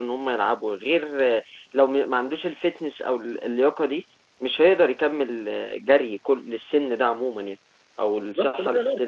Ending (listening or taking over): taking over